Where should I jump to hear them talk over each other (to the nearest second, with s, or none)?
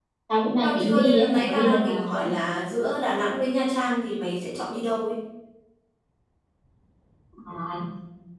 1 s